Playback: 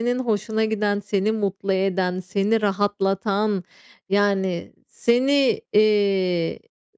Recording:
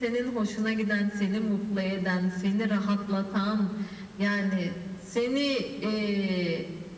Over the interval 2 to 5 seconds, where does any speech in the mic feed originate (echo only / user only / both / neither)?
echo only